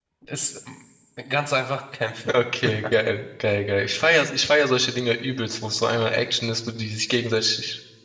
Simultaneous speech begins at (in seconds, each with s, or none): none